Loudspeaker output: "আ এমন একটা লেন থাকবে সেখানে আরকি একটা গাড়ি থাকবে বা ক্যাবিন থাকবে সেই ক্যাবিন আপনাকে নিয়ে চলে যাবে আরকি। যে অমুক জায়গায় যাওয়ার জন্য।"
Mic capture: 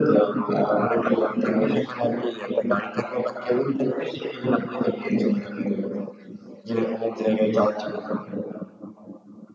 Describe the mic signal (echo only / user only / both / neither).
echo only